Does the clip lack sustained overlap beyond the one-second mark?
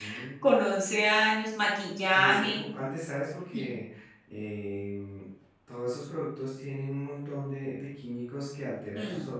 Yes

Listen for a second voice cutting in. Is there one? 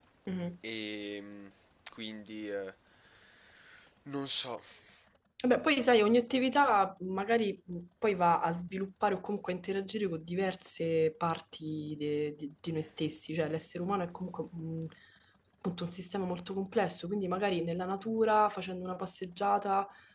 No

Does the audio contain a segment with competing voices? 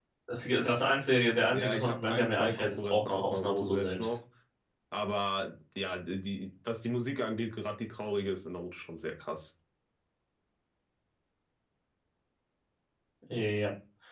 Yes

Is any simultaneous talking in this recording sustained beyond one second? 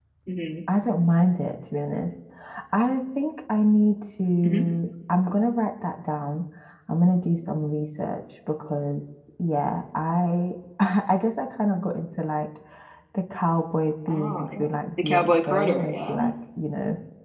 Yes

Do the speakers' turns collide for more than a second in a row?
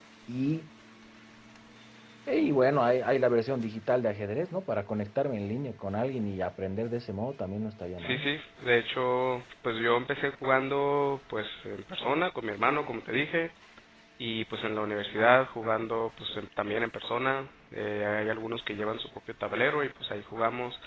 No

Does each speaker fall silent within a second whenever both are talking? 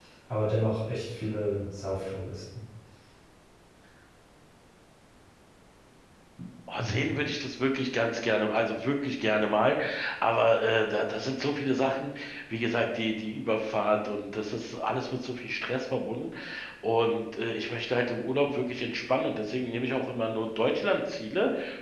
Yes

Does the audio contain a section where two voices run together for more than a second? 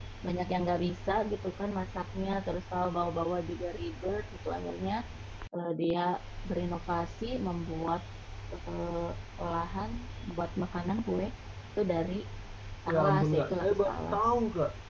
Yes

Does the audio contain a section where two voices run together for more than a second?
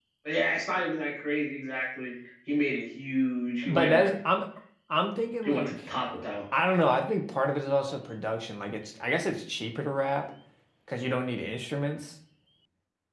No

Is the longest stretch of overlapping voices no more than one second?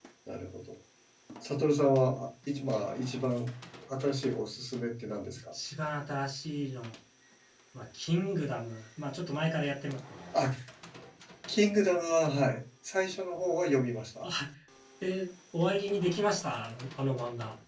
Yes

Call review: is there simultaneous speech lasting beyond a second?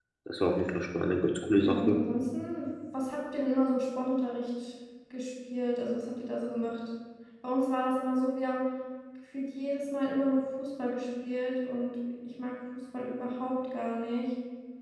No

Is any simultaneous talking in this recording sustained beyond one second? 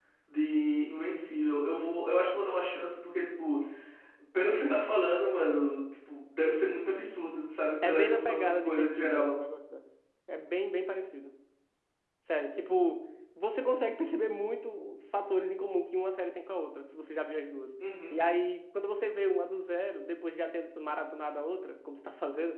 Yes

